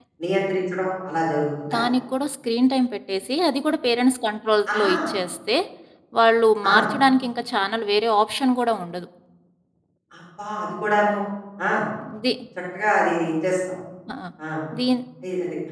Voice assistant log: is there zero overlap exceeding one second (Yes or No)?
Yes